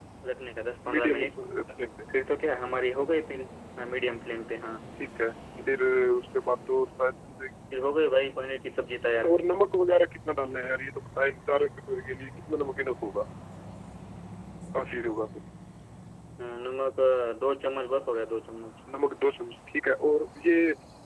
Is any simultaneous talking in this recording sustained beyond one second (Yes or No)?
No